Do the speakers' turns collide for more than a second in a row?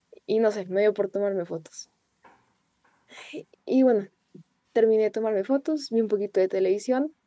No

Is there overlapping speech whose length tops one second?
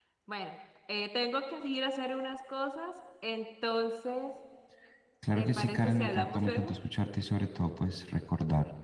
Yes, from 5.3 s

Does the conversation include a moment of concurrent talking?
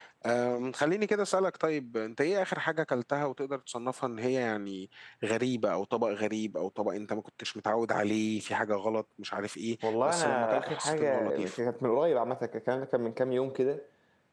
Yes, from 9.8 s

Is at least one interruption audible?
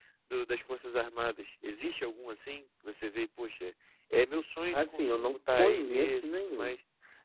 Yes, from 4.7 s

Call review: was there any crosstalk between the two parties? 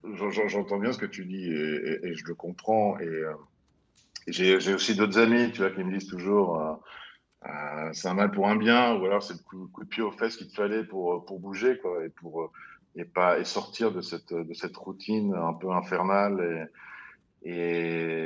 No

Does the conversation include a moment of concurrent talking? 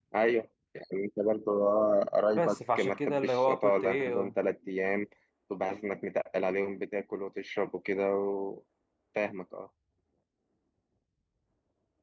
Yes, from 2.4 s

